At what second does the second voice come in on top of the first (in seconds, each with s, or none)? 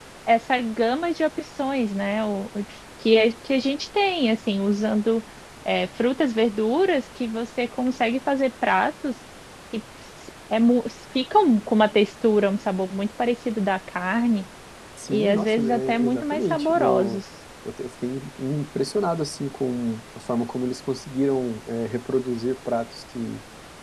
15.1 s